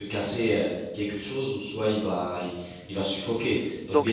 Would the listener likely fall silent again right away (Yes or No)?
No